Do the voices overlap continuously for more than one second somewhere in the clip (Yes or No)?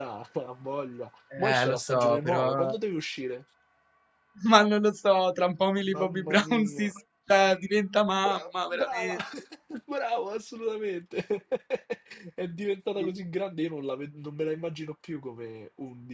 Yes